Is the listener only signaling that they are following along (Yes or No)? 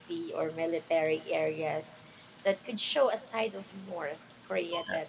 Yes